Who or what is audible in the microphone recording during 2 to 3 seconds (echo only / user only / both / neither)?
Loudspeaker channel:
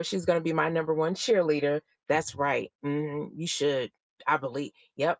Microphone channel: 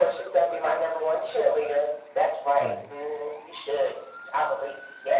both